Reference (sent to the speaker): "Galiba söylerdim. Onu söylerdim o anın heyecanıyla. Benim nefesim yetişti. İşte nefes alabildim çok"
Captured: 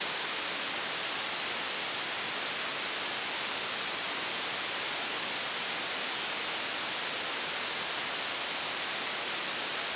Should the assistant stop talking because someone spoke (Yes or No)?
No